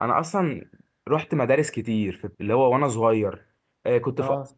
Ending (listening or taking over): listening